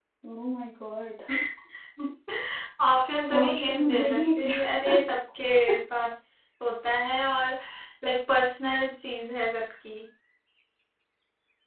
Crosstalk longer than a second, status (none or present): present